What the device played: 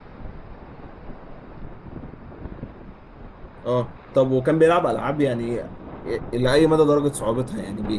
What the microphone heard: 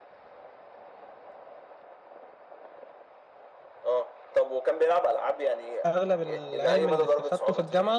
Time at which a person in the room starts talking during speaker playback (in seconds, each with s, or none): 5.9 s